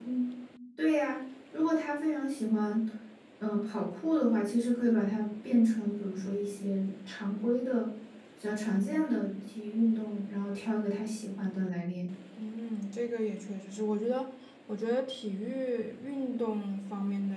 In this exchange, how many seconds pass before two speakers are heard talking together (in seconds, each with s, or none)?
none